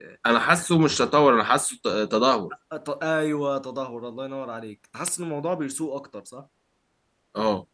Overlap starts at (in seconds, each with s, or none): none